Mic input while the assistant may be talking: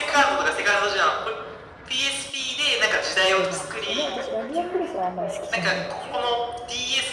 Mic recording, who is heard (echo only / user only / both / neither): both